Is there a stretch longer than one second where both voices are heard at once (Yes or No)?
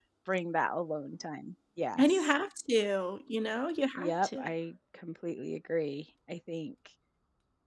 No